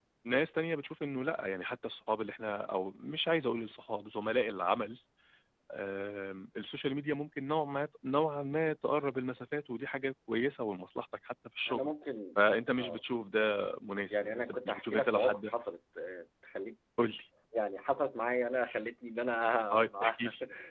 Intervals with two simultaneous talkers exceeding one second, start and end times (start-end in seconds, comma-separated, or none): 14.1-15.5